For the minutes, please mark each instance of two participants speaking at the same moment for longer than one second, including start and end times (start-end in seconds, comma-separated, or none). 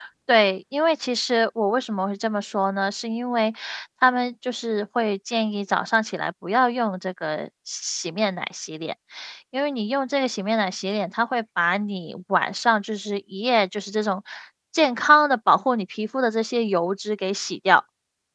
none